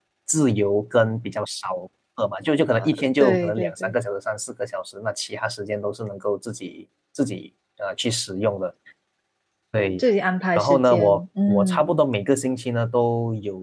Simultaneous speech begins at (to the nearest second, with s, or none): 3 s